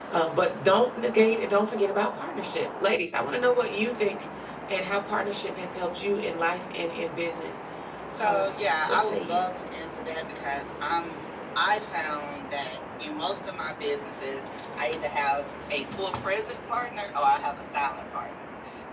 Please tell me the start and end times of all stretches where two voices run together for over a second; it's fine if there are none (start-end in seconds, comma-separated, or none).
8.2-9.4